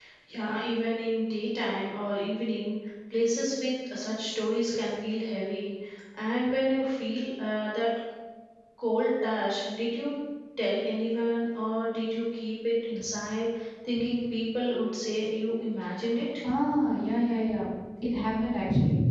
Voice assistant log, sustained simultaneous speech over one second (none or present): none